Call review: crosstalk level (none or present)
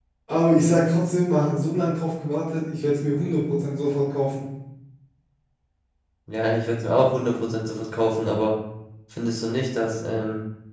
none